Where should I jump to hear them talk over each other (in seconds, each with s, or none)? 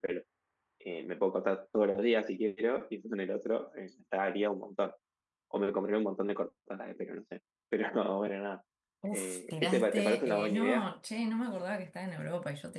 9.1 s